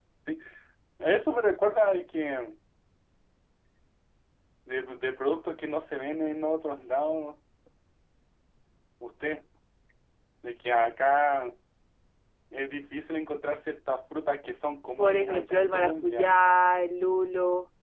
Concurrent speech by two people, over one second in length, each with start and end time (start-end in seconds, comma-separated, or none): 15.0-16.4